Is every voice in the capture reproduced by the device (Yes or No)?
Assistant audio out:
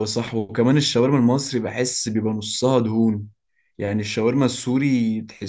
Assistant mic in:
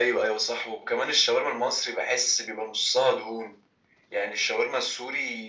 Yes